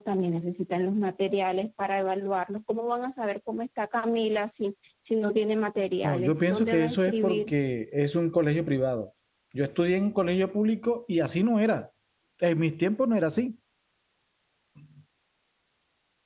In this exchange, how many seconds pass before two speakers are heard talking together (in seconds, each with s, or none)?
6.0 s